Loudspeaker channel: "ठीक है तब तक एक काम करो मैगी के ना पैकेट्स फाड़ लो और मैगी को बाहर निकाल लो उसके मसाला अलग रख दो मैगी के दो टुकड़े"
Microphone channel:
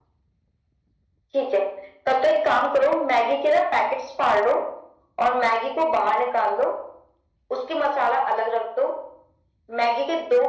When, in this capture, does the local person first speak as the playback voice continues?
none

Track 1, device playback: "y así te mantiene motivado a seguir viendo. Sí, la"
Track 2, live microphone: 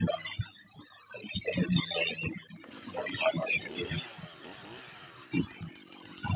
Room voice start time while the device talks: none

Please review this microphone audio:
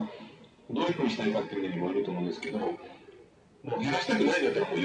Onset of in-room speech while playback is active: none

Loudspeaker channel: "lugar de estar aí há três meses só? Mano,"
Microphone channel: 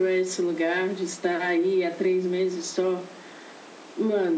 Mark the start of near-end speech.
none

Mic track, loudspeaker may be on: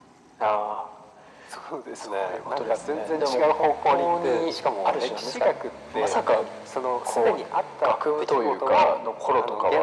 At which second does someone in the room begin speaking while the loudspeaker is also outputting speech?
none

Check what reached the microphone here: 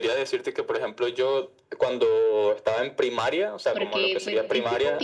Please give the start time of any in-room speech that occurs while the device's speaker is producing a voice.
3.7 s

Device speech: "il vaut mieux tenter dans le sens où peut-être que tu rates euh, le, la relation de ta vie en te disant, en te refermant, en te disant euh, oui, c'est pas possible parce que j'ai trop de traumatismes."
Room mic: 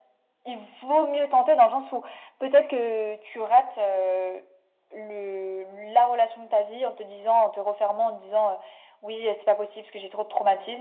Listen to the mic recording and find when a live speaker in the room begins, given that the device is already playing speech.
none

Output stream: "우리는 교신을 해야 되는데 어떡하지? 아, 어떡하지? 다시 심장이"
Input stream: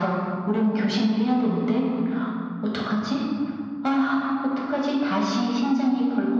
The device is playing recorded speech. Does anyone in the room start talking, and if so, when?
none

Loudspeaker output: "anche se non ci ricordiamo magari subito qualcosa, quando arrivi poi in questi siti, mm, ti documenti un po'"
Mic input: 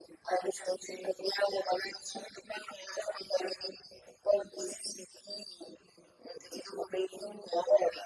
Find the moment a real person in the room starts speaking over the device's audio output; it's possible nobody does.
none

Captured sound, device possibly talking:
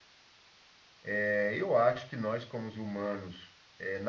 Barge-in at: 1.1 s

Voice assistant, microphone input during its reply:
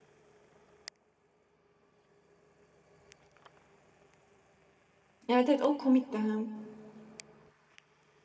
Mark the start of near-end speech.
5.3 s

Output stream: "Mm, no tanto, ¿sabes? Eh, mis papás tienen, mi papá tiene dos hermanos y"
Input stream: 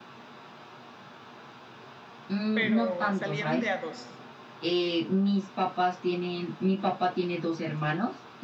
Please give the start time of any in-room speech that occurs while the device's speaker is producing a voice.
2.5 s

